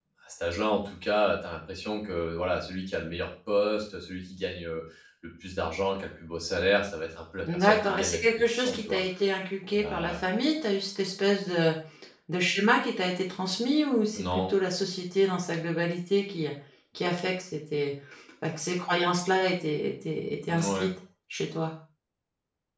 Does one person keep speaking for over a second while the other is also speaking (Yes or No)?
Yes